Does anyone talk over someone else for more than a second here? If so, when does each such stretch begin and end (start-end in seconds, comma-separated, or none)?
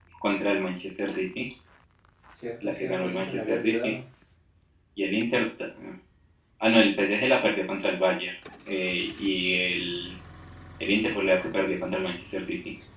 2.6-3.9